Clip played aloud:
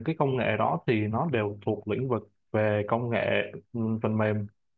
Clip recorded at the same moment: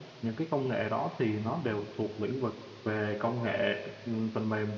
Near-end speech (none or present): none